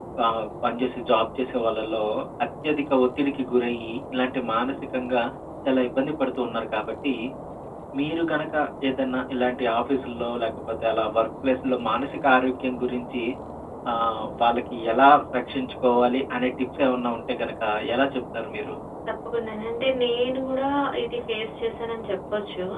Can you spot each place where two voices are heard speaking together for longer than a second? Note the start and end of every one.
none

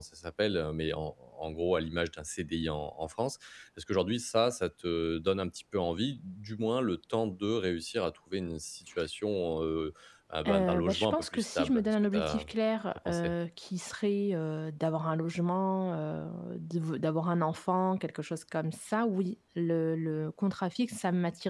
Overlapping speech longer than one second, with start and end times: 10.5-12.4

